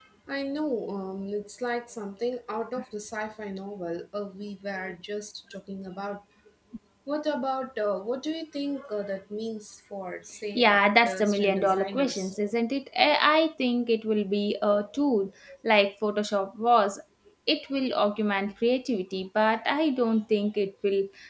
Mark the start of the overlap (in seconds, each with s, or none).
10.6 s